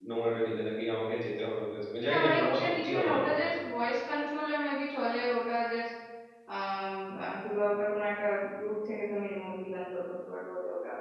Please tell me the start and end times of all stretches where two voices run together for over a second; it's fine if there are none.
2.1-3.5

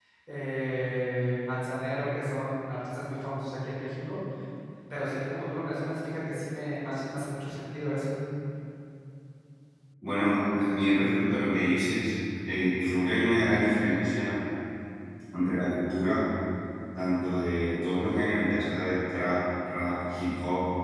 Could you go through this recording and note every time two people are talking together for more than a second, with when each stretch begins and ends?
none

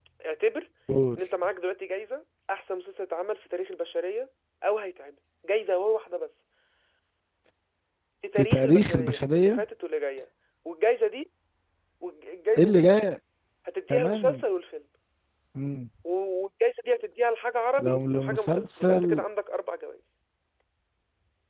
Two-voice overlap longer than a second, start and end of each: 8.4-9.6, 17.8-19.2

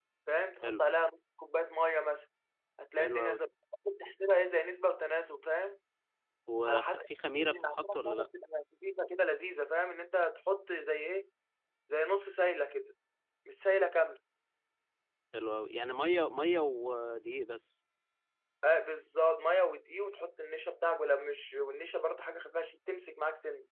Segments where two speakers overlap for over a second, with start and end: 6.7-8.3

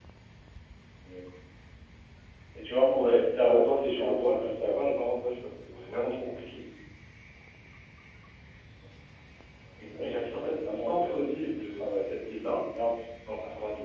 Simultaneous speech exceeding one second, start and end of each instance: 3.0-4.8, 9.9-12.1

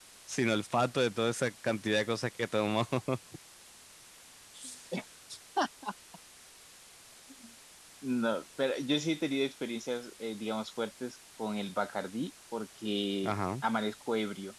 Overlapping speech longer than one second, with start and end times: none

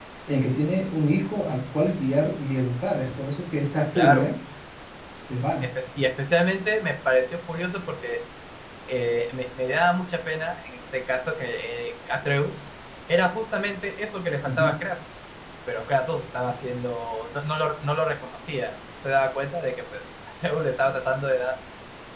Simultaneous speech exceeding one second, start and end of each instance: none

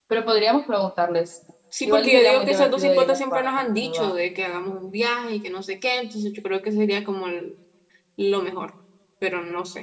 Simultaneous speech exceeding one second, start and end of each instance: 1.9-4.2

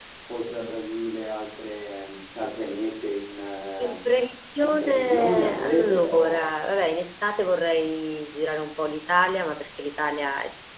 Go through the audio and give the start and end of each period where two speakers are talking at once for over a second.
4.6-6.5

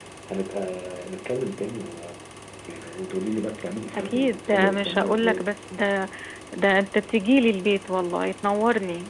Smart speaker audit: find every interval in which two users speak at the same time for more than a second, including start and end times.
3.9-5.4

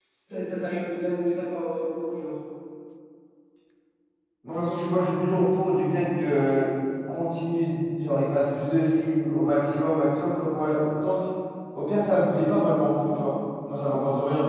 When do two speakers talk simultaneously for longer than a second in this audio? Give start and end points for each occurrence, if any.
none

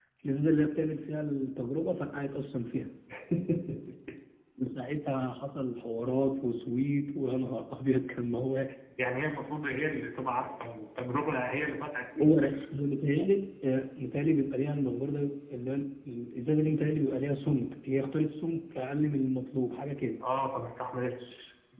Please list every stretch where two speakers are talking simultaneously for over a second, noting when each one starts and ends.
none

